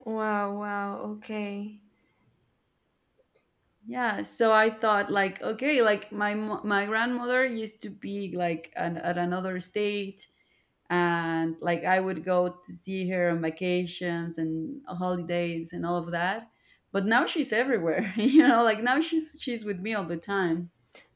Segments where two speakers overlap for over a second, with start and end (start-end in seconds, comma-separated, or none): none